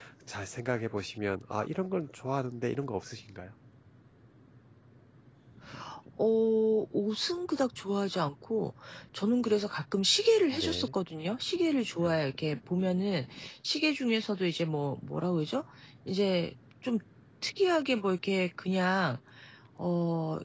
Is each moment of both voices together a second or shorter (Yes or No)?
Yes